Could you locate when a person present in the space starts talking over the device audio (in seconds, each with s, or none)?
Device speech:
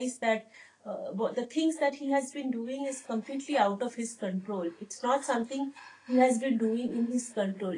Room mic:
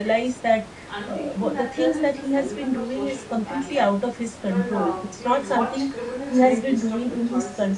0.9 s